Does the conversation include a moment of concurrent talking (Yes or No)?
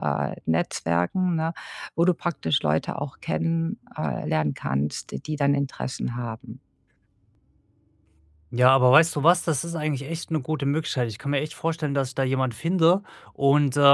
No